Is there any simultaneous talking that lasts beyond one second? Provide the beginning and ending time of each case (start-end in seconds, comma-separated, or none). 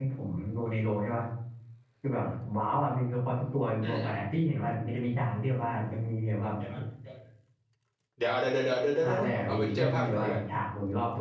9.0-10.4